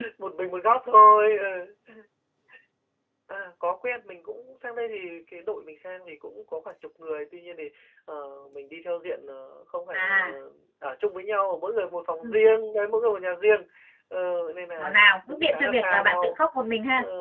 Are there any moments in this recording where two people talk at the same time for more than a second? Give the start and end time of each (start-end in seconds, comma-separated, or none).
14.8-16.4